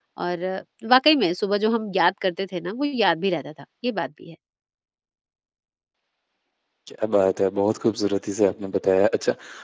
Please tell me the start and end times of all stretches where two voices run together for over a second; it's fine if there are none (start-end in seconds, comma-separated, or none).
none